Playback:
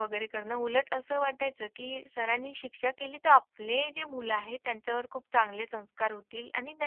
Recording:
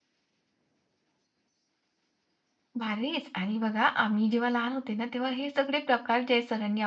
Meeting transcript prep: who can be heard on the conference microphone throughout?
user only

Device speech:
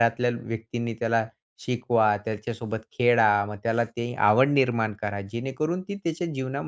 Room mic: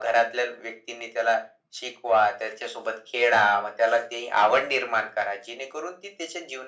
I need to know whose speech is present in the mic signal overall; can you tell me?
echo only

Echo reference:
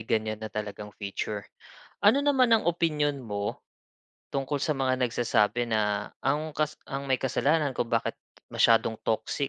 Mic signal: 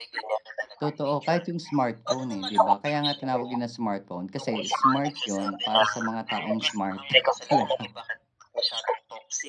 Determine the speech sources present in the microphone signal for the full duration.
both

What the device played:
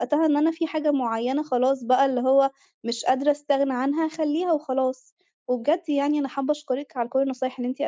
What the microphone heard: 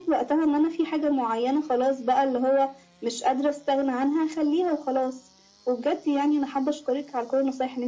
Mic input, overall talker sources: echo only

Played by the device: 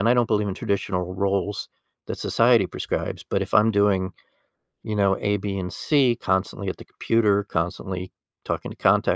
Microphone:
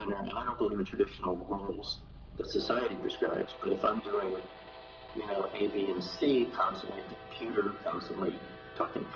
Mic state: echo only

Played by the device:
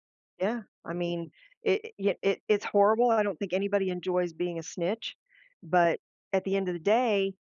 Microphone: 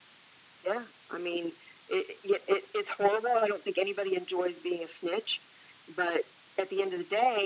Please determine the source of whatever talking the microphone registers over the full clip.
echo only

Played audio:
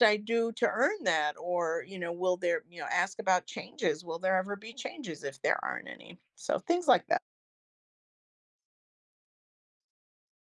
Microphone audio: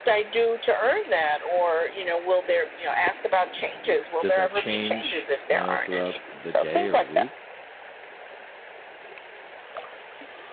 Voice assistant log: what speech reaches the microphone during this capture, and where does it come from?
both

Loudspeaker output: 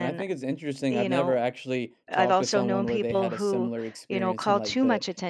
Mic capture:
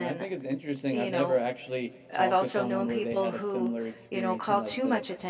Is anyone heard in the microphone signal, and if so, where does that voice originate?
echo only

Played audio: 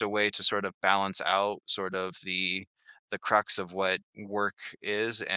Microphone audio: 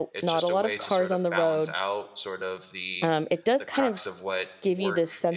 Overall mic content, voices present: both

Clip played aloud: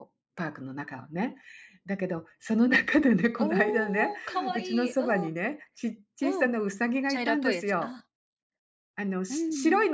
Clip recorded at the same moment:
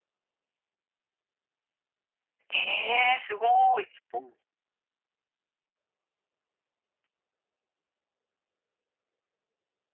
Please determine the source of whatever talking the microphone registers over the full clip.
user only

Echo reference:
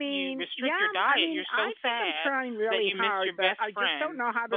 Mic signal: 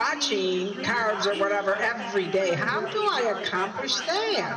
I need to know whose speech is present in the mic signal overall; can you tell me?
both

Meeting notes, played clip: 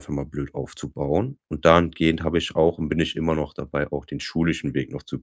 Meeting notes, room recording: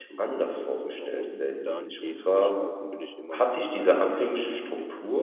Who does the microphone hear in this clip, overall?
both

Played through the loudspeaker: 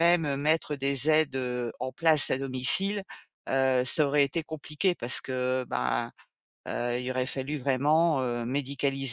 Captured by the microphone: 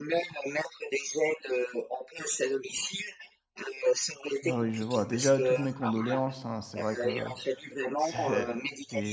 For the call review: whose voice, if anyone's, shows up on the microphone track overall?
both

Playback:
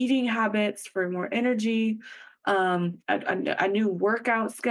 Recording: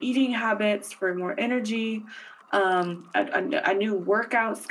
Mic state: echo only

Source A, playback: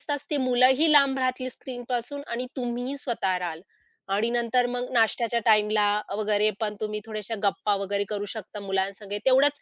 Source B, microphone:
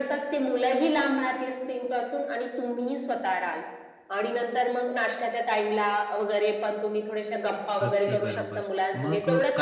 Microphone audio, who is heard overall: both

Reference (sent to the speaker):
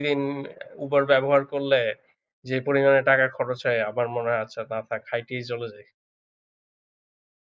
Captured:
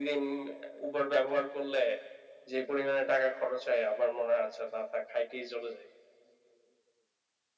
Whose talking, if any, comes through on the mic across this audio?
echo only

